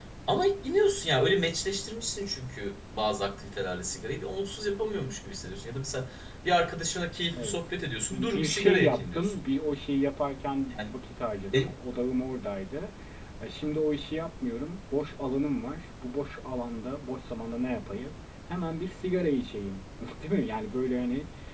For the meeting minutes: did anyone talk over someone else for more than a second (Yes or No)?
Yes